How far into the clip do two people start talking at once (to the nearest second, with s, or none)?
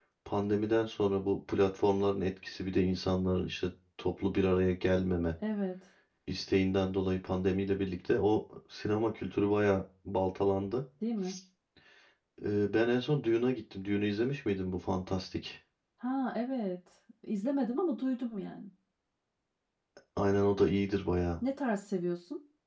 none